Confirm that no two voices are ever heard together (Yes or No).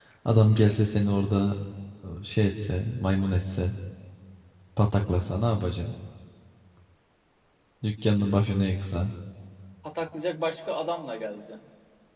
Yes